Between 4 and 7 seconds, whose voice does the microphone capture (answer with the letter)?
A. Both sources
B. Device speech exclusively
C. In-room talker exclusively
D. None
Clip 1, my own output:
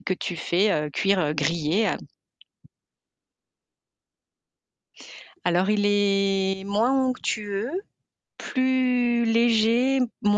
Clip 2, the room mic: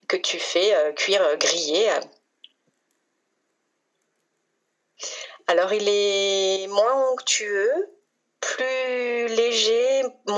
B